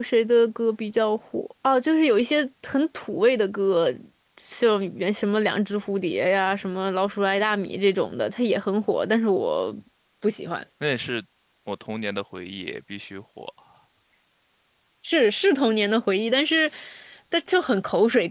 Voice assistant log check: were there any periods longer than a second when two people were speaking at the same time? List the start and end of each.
none

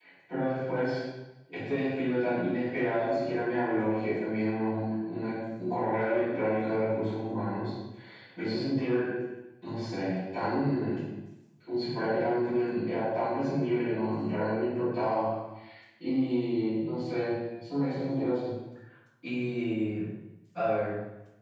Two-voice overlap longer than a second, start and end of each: none

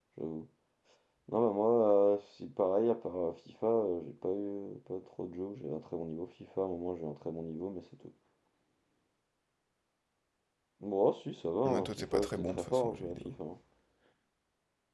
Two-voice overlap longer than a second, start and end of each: 11.7-13.3

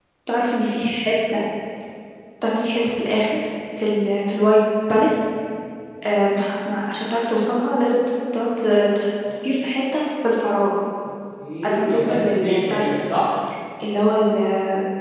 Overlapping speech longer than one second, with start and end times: 11.6-12.9

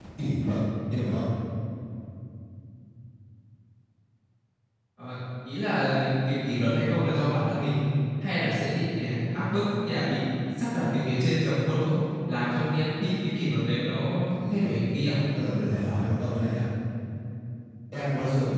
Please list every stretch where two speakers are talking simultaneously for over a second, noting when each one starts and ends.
none

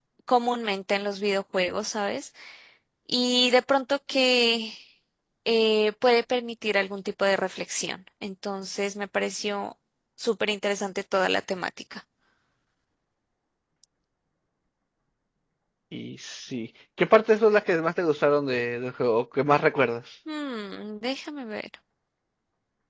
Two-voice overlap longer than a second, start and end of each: none

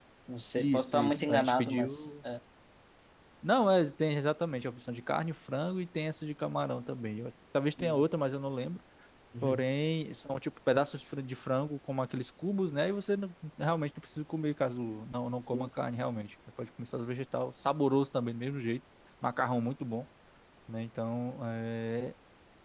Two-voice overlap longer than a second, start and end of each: 0.6-2.1

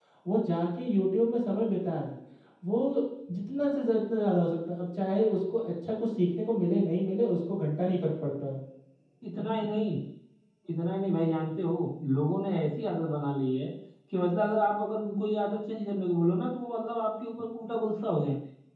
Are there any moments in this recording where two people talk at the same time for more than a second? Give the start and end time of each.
none

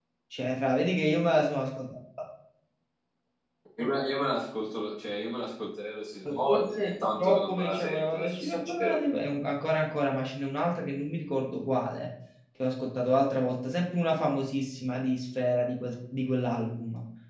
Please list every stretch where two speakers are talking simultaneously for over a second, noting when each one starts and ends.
6.5-9.0

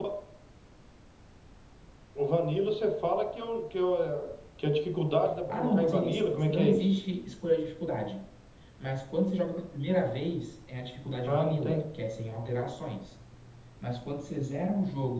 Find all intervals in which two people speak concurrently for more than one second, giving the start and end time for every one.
5.5-7.0

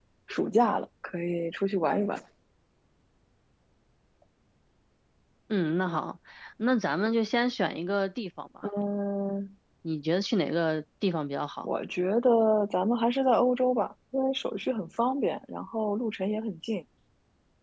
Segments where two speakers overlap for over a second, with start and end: none

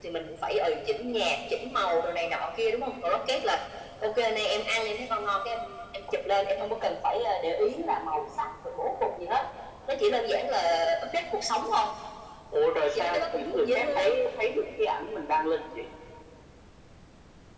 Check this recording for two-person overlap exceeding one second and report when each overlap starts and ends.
12.9-14.2

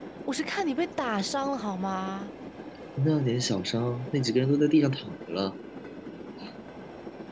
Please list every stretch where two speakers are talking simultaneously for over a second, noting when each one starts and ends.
none

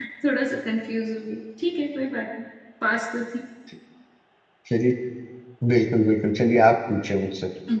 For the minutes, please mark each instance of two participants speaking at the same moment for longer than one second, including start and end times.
none

